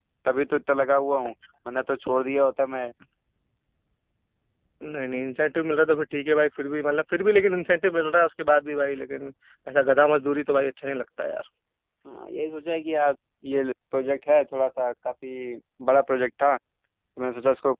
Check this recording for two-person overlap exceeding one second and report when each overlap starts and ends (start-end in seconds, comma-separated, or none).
none